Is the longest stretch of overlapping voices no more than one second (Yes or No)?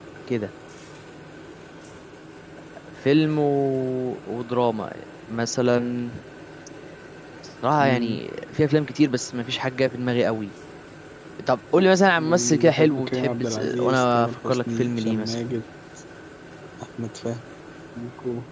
No